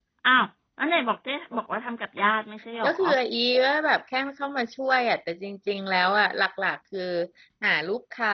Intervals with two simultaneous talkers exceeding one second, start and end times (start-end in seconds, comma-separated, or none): none